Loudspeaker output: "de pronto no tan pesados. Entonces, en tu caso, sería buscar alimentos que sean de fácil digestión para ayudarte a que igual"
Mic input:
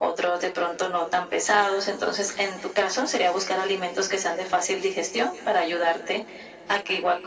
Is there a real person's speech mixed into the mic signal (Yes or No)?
No